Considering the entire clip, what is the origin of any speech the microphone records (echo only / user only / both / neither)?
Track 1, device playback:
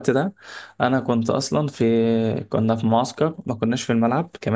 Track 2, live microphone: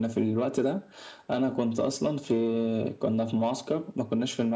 echo only